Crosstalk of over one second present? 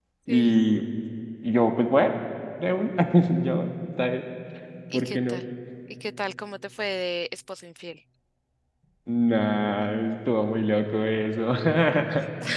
No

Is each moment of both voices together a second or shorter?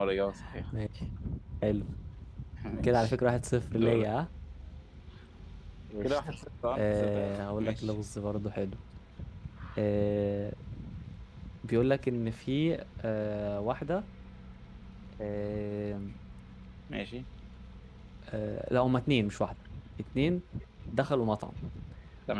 No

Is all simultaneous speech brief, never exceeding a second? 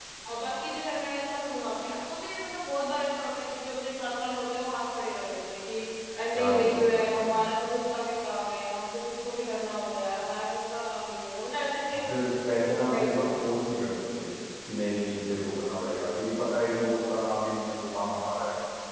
No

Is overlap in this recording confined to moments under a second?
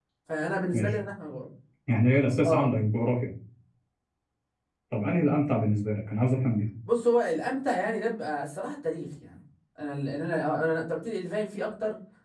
Yes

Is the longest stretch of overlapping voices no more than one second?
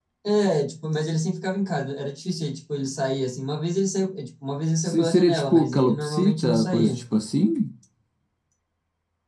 No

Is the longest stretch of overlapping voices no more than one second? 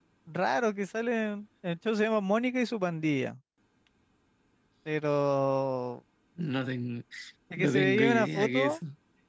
No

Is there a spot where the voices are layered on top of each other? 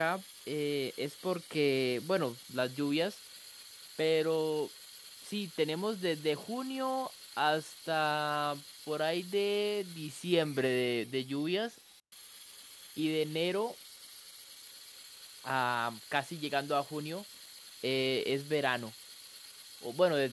No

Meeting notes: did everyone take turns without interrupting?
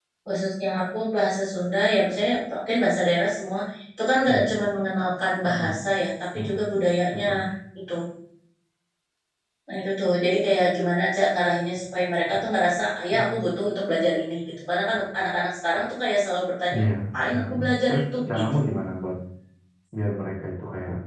No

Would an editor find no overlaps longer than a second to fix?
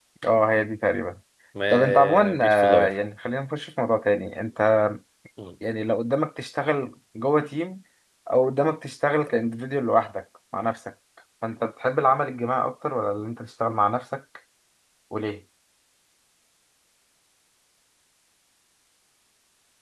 No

